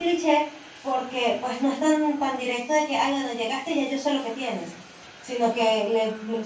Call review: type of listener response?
listening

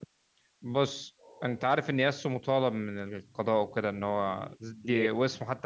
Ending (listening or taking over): listening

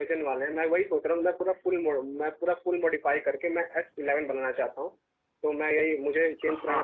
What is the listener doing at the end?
listening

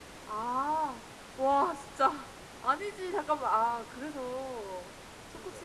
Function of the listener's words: listening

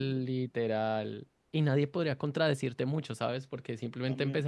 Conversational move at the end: listening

